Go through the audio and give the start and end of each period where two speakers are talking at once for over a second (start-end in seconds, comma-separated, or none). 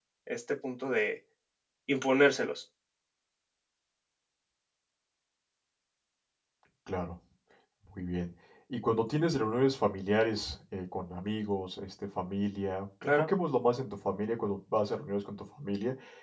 none